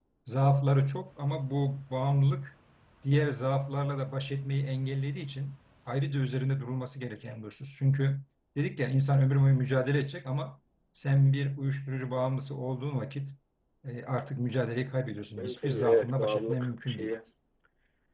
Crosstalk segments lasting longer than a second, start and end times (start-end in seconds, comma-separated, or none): 15.4-17.1